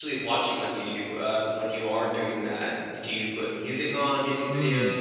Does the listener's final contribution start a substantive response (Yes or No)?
Yes